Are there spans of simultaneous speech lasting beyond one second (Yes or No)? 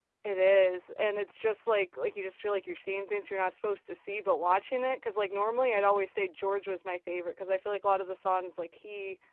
No